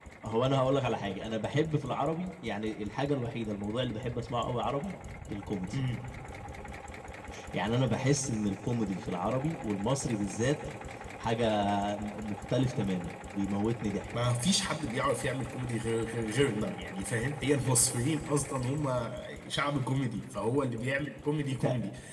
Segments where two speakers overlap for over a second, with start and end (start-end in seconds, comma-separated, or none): none